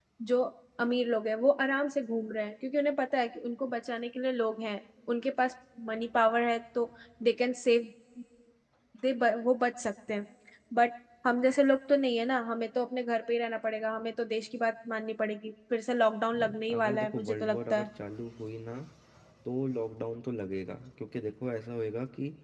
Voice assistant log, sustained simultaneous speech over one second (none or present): present